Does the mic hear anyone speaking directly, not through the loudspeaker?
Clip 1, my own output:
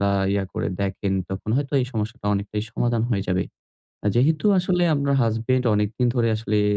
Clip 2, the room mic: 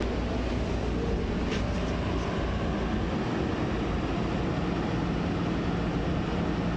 No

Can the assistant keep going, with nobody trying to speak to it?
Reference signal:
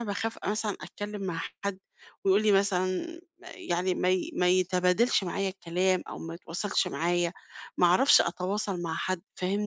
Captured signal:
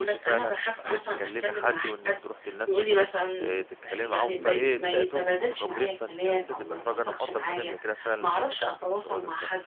No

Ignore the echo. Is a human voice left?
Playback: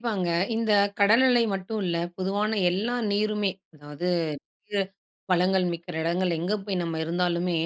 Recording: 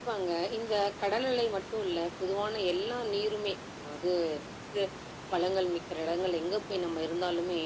No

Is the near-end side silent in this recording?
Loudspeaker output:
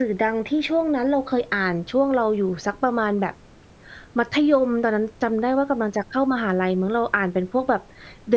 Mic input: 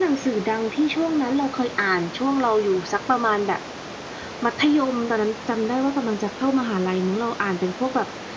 Yes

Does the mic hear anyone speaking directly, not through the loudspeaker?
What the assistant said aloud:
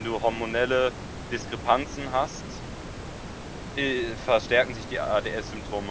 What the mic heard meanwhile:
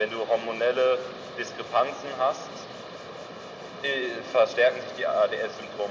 No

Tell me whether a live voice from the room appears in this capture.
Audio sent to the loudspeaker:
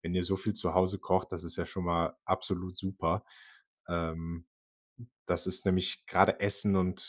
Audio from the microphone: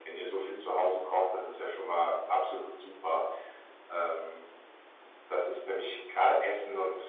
No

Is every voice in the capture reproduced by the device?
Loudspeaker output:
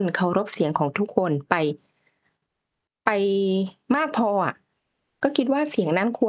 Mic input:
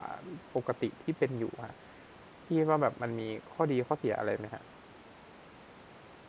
No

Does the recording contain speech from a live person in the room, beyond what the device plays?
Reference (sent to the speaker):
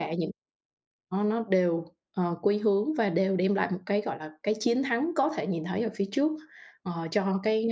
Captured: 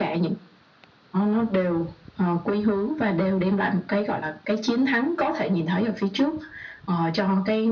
No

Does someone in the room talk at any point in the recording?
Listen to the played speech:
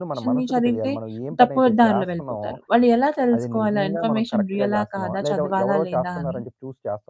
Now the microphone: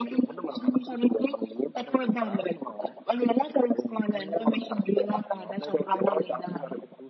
No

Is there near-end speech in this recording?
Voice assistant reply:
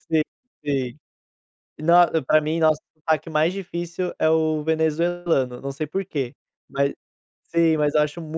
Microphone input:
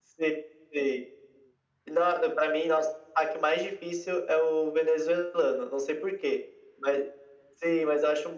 No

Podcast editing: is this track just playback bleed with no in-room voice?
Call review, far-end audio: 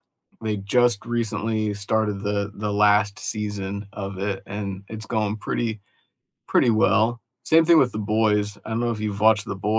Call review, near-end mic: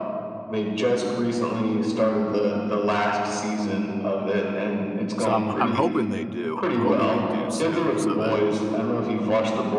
No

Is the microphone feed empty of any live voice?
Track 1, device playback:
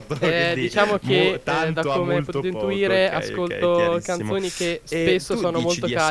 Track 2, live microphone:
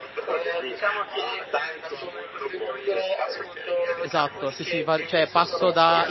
No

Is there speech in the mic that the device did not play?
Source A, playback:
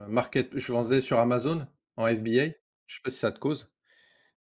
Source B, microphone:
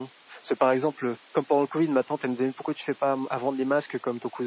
Yes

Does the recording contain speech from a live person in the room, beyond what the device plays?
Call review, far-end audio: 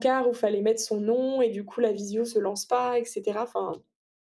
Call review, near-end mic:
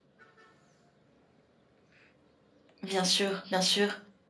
Yes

